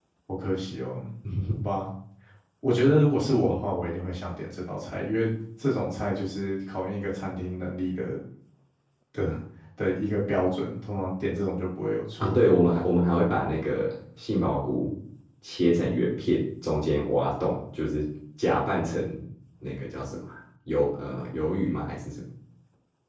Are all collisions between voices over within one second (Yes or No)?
Yes